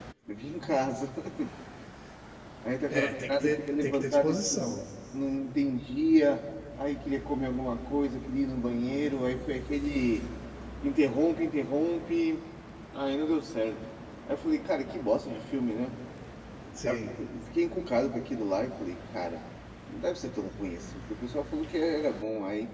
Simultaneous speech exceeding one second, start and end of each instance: 2.9-4.8

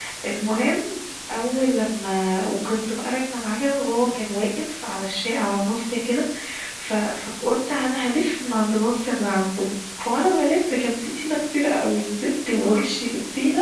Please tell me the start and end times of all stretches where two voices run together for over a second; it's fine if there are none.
none

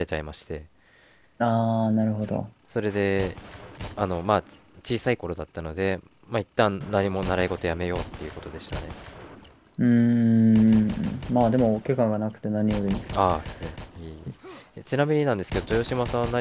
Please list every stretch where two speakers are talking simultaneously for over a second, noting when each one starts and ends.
none

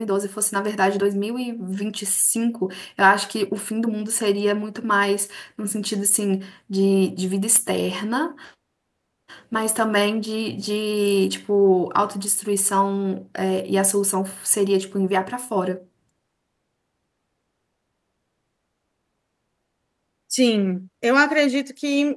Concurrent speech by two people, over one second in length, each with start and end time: none

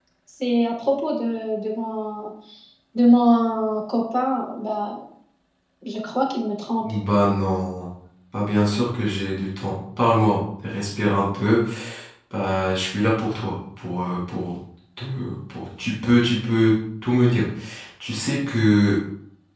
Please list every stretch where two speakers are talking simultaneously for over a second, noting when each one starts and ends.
none

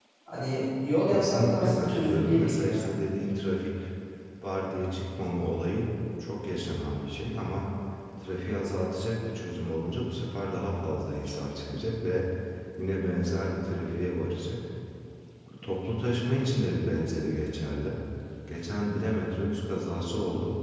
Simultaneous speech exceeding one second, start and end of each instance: 1.1-2.9

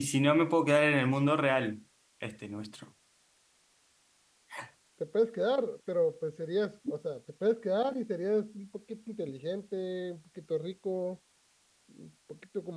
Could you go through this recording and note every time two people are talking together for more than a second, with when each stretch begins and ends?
none

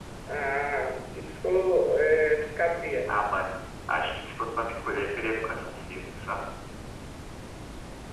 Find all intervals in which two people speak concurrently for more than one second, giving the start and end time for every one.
none

